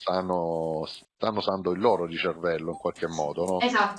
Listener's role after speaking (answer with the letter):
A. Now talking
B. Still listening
A